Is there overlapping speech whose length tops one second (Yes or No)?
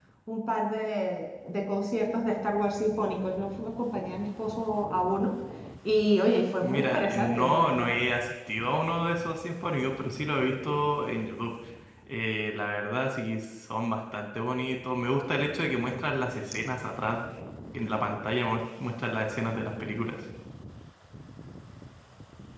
Yes